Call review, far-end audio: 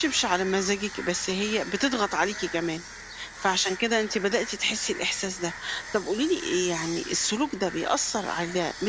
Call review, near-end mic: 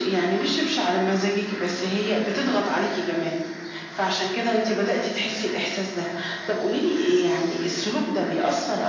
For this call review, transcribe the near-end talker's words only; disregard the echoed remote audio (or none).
none